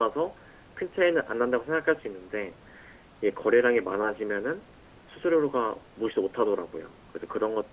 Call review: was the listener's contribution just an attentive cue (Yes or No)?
Yes